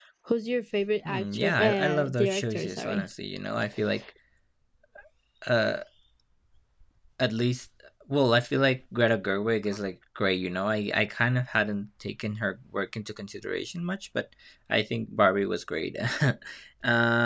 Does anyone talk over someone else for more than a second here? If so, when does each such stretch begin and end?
1.1-3.1

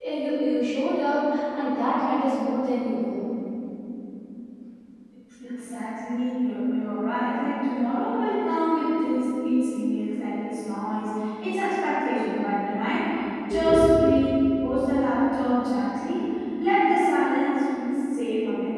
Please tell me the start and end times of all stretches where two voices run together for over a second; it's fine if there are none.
none

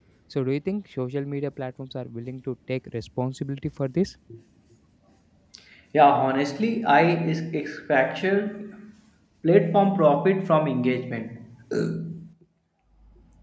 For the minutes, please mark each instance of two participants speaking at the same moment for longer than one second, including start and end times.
none

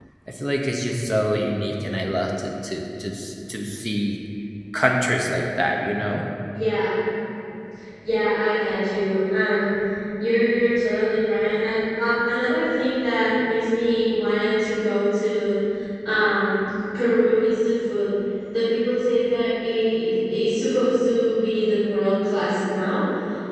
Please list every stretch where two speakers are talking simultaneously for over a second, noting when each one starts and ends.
none

